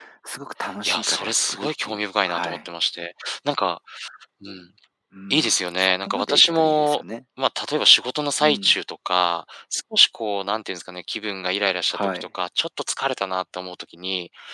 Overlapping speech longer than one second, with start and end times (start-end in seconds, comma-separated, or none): 0.8-2.7, 5.3-7.0